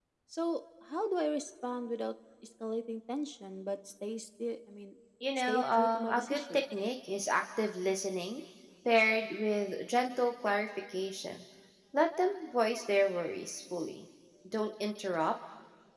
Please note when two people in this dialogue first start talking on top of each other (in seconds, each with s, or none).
5.2 s